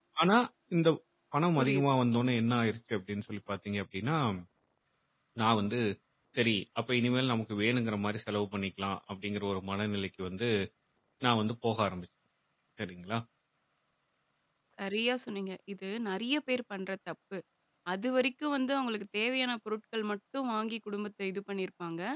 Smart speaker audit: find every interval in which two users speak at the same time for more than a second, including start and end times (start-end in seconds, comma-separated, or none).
none